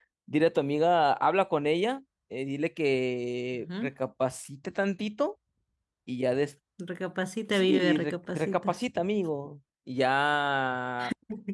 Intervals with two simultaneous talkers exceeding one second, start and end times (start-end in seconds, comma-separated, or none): 7.5-8.8